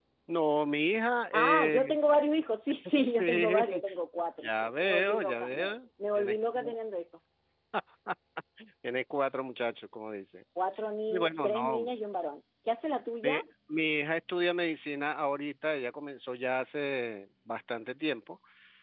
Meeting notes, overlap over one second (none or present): present